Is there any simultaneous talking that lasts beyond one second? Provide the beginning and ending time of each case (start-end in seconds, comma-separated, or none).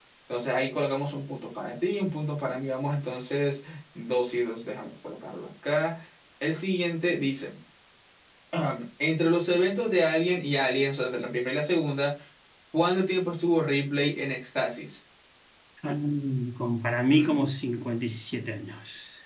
none